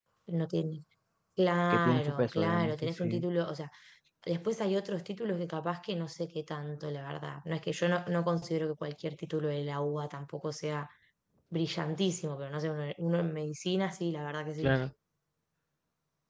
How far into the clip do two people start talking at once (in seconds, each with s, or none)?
1.7 s